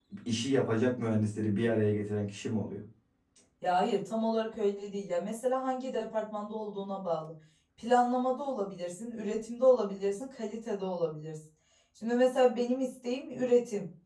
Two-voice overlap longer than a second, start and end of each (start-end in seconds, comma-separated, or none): none